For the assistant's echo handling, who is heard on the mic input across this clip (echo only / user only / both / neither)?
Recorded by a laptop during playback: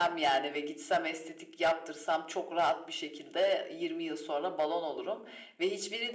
echo only